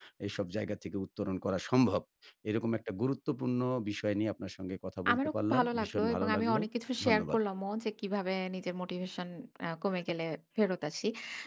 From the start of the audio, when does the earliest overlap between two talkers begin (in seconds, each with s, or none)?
5.1 s